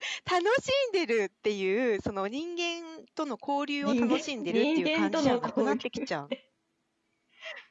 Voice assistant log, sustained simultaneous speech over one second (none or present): present